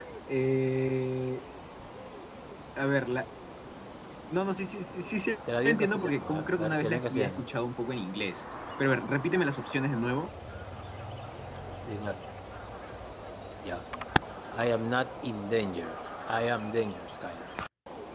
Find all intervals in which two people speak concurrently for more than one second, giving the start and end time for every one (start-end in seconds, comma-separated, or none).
5.6-7.4